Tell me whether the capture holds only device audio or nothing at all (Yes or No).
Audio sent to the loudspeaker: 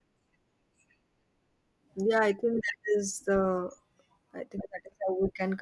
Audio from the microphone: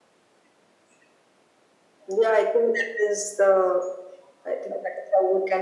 Yes